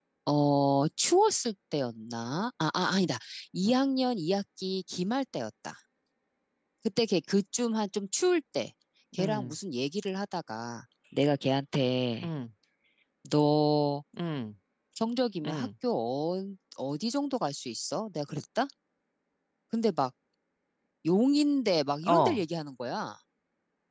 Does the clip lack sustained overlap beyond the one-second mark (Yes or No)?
Yes